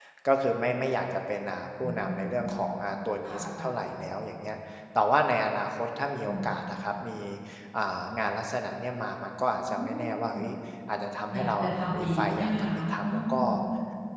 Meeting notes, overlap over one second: present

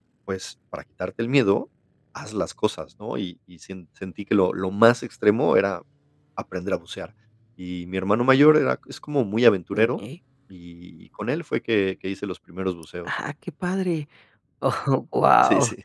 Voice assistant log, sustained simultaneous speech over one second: none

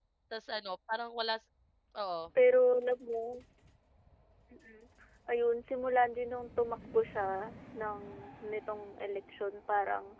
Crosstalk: none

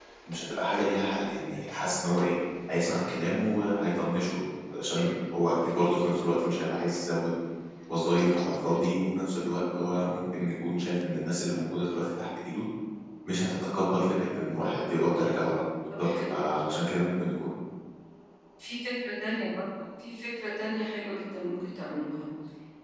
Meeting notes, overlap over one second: none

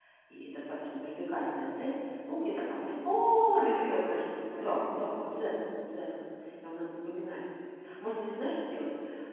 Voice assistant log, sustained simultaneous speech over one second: present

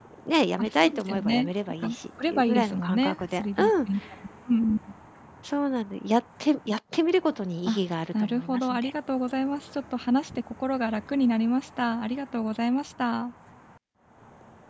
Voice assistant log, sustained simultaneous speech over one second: present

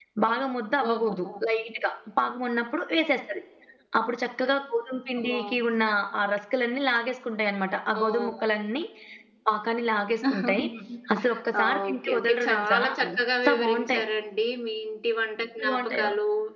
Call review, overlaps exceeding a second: present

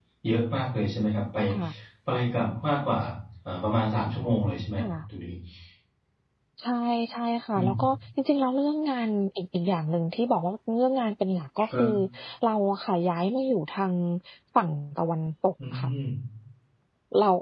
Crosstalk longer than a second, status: none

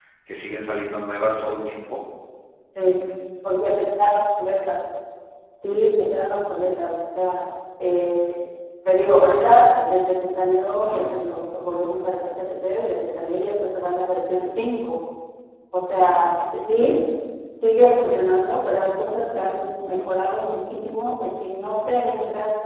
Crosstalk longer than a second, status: none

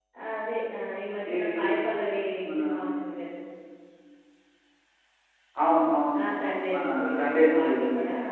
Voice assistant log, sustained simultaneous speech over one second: present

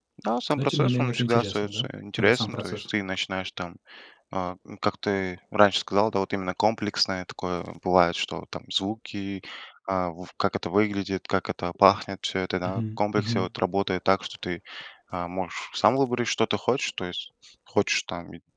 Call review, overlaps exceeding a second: present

